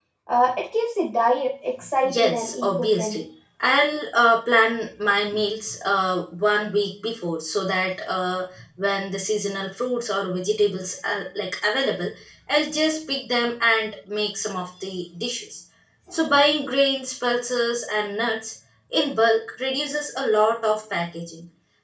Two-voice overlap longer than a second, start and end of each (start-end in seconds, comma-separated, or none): 2.0-3.2